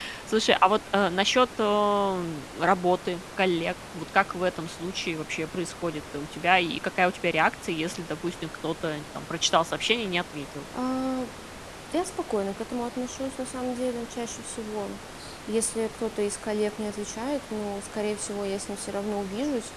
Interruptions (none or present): none